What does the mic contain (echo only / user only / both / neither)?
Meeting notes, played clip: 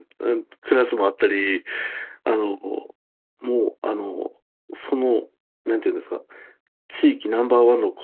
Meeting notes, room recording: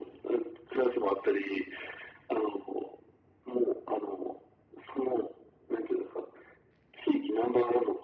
echo only